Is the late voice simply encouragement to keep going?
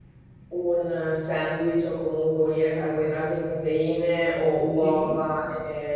Yes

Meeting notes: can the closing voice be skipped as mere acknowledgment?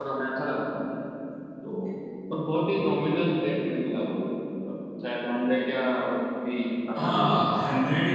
No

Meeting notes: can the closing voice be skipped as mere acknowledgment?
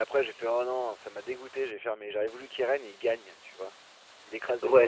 No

